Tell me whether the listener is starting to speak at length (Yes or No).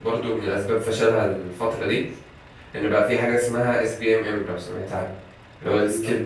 No